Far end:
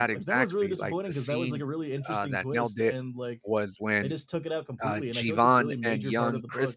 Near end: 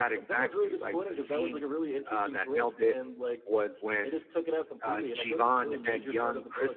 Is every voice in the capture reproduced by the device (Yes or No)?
Yes